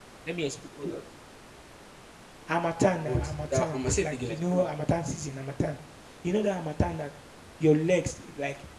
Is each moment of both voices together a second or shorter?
No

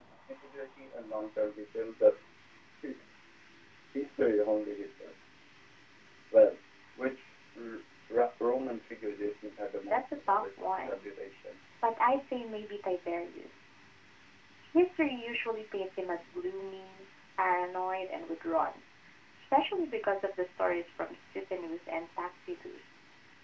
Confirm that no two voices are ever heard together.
No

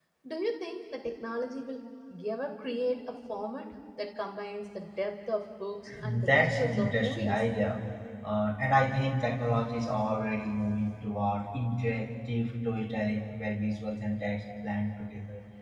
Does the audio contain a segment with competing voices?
Yes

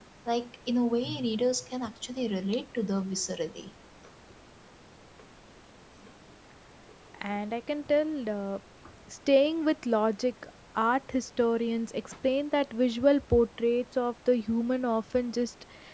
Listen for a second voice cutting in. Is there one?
No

